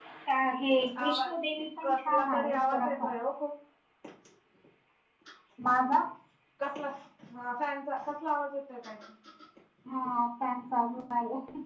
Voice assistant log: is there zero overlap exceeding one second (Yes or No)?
No